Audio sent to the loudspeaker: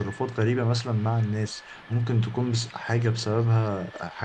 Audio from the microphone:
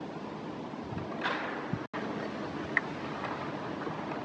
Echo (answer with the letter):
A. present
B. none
B